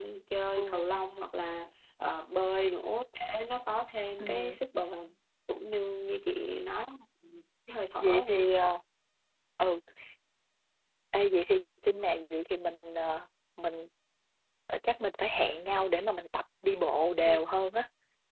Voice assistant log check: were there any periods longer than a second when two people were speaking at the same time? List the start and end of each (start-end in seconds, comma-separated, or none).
none